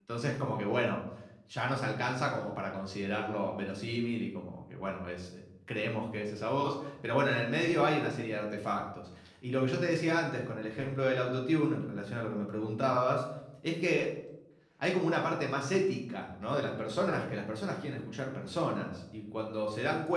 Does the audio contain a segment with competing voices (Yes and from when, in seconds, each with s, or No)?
No